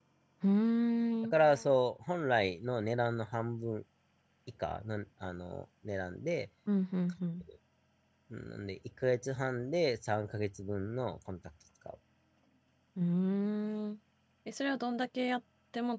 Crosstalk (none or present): none